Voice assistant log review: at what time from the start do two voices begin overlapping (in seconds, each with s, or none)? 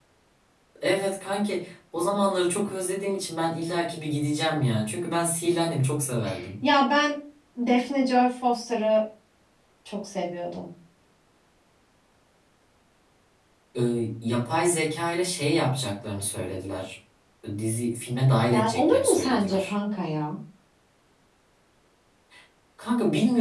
18.5 s